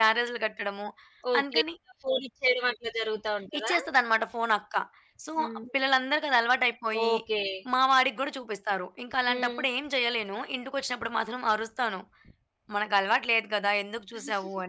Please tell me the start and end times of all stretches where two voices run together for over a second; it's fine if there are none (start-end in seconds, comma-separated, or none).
none